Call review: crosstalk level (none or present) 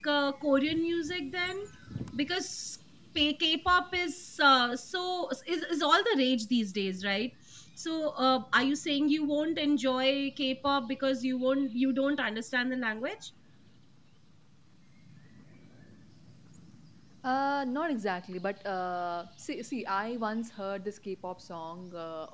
none